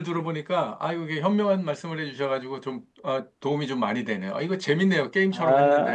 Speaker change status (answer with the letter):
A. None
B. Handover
B